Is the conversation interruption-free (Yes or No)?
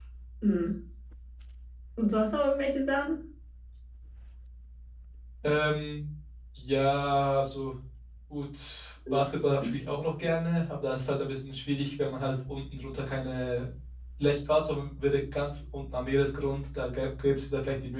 Yes